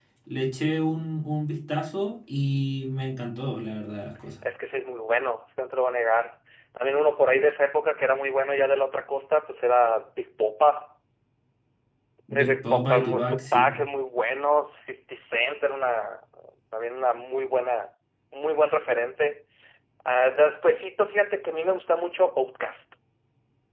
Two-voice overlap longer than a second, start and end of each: 12.3-13.8

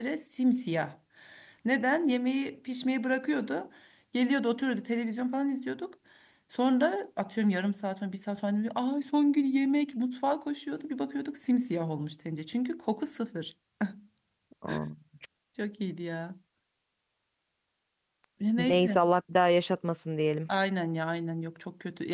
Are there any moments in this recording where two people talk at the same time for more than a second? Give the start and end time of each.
none

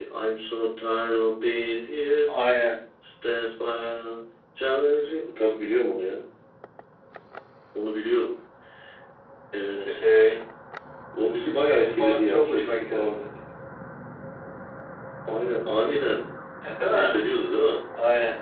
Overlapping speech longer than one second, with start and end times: 11.3-13.0

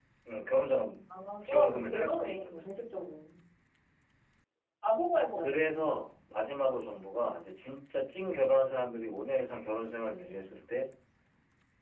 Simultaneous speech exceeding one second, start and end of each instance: 1.4-2.7

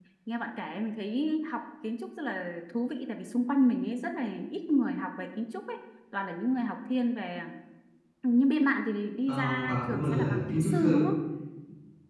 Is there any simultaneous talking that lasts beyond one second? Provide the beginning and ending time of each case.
9.3-11.1

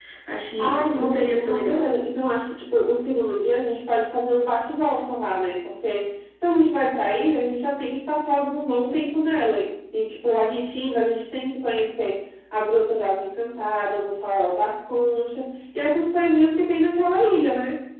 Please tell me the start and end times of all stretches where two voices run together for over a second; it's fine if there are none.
0.6-1.9

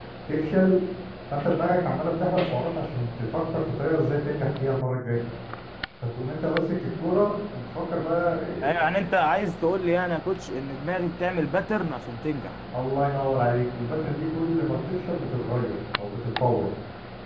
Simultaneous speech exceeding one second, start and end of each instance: none

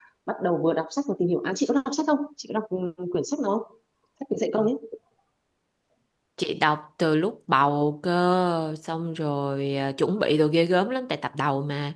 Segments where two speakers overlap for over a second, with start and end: none

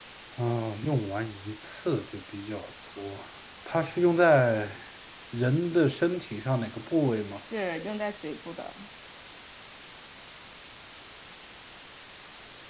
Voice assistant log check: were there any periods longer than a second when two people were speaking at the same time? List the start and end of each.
none

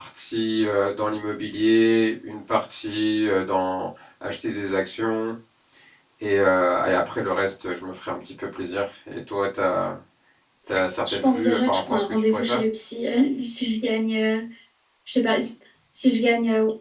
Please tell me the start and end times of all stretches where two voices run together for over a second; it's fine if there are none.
11.1-12.6

